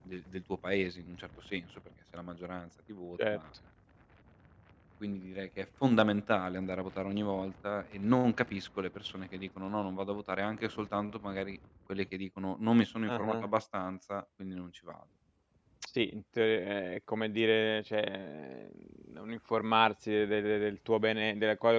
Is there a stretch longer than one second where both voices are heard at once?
No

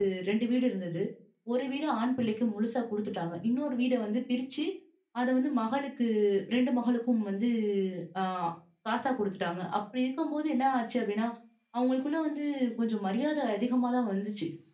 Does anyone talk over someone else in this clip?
No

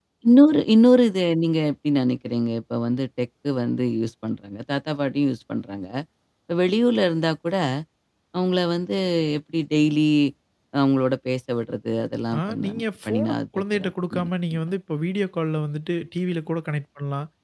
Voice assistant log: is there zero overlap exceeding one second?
No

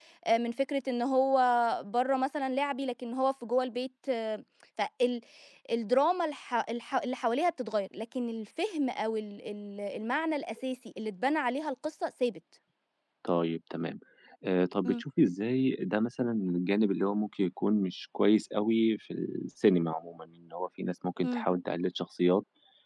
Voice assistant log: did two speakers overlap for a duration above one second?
No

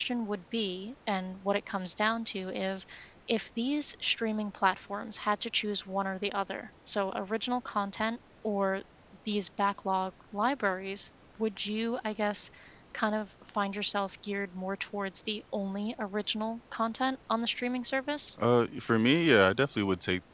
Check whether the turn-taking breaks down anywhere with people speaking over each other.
No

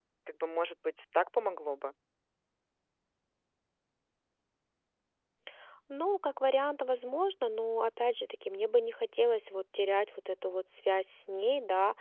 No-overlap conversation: Yes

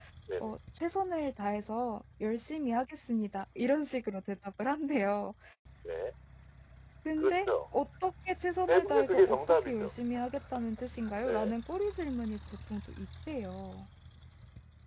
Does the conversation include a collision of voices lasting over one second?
Yes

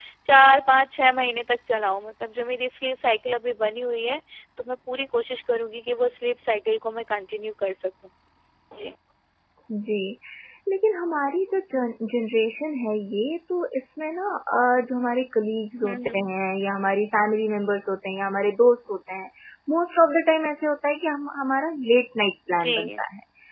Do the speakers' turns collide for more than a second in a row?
No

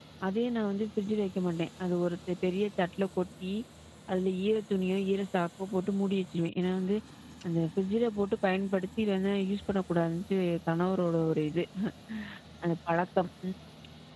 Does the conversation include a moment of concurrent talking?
No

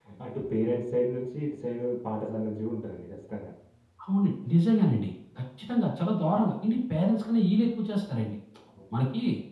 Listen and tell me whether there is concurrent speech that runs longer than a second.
No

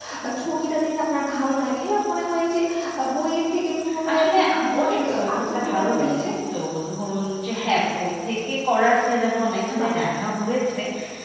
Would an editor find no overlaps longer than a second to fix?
No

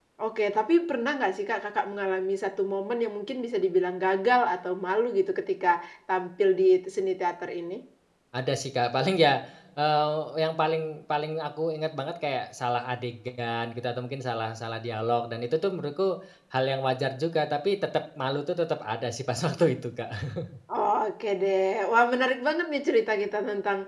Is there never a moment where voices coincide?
Yes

